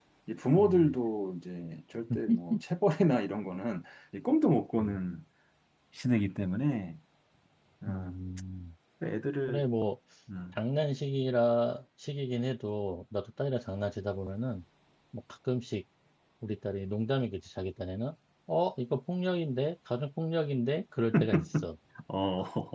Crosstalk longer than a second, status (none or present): none